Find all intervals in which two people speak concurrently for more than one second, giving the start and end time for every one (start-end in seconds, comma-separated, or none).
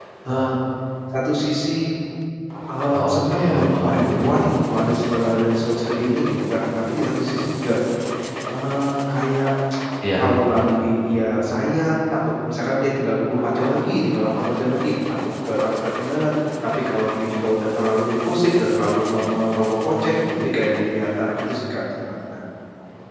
3.1-4.3